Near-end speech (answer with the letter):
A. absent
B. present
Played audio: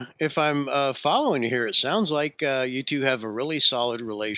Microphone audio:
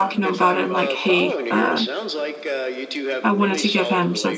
B